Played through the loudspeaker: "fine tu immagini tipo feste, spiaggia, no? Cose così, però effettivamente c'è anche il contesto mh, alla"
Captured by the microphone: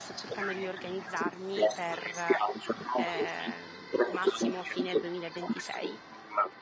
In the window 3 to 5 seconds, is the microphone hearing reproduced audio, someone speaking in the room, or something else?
both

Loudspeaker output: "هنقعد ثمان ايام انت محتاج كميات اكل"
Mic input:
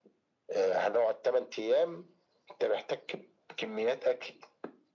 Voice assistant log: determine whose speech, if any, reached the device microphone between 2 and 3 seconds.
echo only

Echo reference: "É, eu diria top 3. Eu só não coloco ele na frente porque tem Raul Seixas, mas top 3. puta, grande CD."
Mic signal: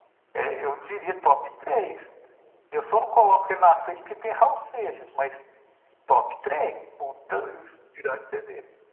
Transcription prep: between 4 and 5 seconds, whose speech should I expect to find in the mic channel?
echo only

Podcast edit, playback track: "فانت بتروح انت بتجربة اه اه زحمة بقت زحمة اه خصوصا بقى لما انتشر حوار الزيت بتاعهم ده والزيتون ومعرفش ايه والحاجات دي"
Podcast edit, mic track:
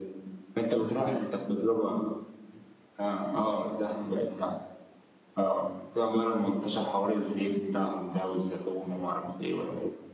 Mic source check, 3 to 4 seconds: echo only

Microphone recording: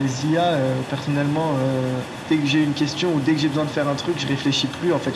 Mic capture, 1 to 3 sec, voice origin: echo only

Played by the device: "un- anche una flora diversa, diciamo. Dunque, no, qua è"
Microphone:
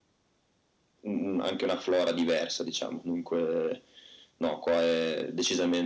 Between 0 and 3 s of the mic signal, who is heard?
echo only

